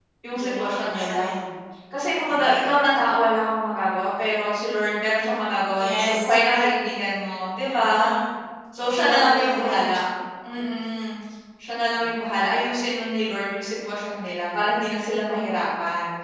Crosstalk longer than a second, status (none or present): present